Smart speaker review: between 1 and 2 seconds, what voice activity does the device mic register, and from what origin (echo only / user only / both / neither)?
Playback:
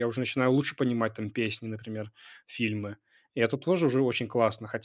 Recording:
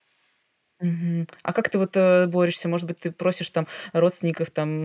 user only